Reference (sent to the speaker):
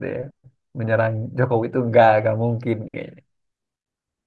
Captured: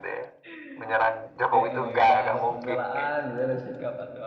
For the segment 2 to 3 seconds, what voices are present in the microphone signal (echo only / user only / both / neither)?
both